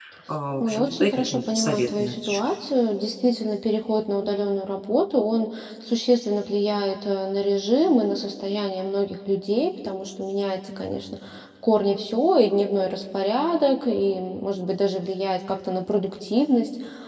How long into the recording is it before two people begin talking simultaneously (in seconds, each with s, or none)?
0.6 s